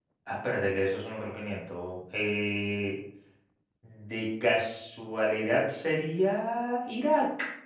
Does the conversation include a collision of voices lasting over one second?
No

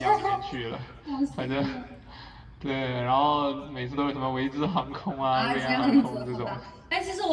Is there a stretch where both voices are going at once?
Yes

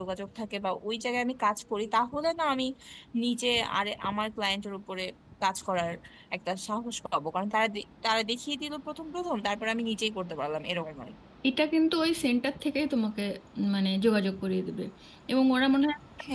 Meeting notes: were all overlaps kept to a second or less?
Yes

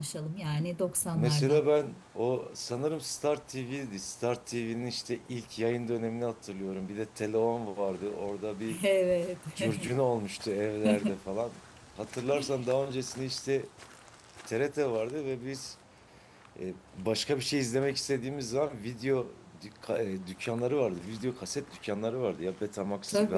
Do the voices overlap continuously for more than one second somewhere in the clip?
No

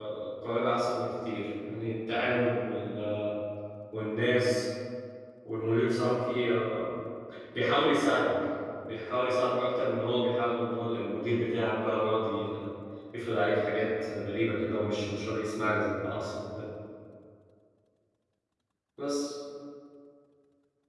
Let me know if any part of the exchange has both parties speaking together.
No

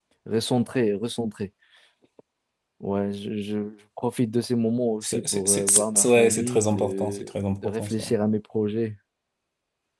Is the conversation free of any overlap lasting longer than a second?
No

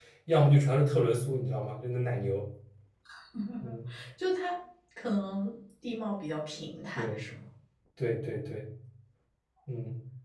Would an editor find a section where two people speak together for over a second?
No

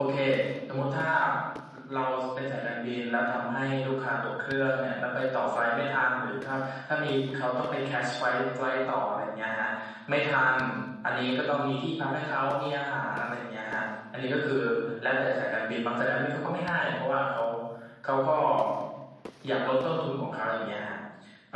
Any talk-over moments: No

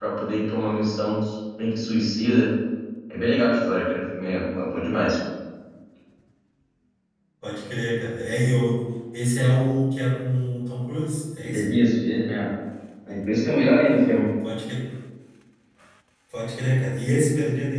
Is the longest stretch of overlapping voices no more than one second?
Yes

